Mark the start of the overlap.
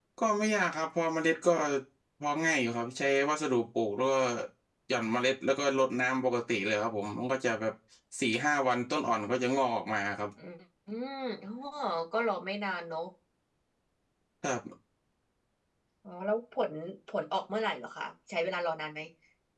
none

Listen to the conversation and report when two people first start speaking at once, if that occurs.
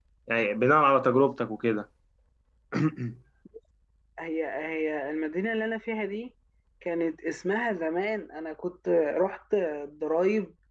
none

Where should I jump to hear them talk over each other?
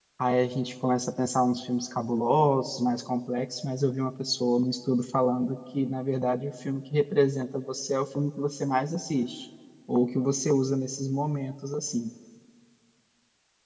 none

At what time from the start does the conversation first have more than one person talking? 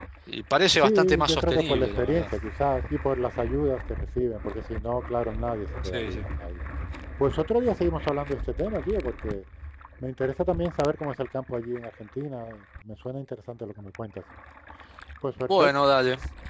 0.8 s

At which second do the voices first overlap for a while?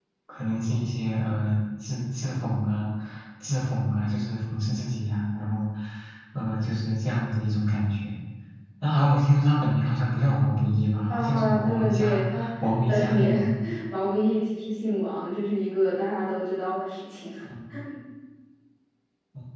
11.1 s

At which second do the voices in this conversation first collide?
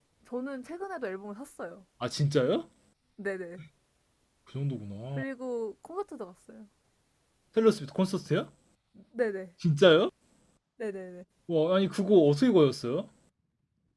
none

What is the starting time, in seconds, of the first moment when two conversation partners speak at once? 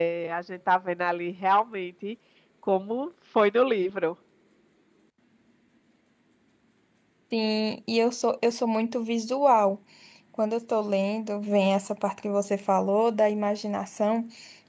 none

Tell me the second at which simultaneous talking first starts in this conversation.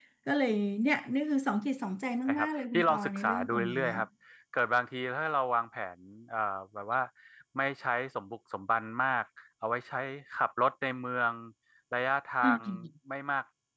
2.4 s

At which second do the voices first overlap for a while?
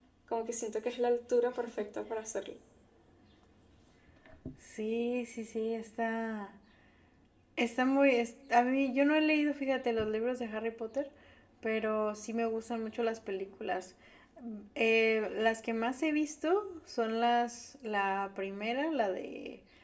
none

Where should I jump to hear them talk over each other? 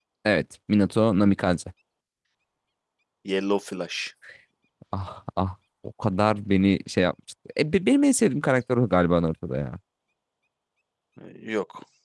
none

